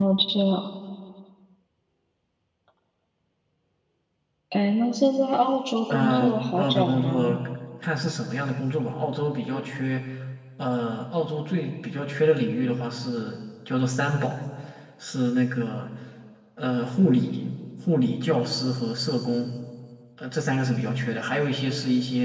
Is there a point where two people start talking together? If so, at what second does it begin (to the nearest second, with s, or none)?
6 s